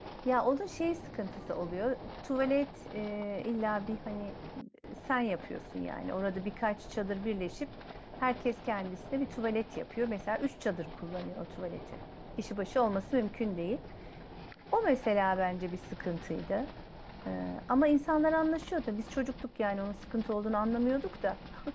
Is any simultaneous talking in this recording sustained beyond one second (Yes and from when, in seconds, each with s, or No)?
No